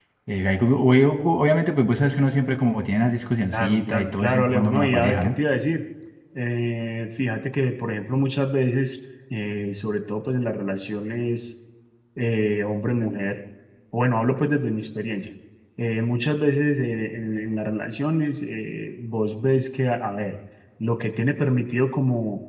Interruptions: present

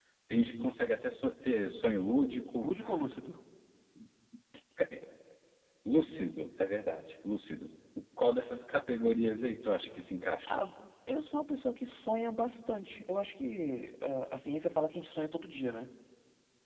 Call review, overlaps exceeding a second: none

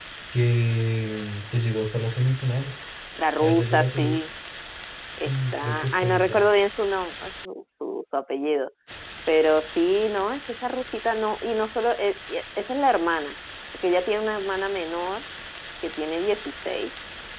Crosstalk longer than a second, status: present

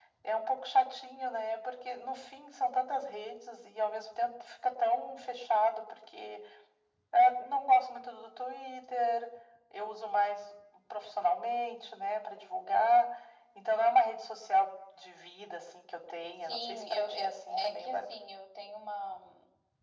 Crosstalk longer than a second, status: present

